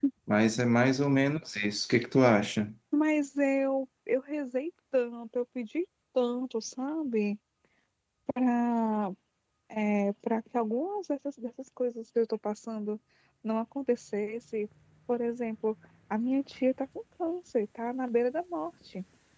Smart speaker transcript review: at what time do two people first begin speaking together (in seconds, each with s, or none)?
none